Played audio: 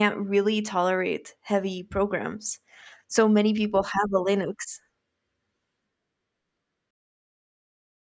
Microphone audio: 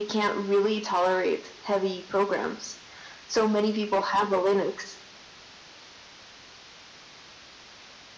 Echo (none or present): present